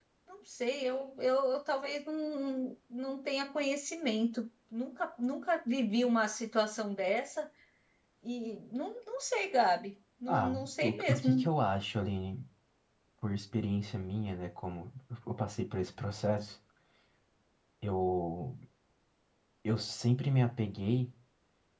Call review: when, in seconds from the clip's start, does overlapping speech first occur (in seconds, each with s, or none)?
10.3 s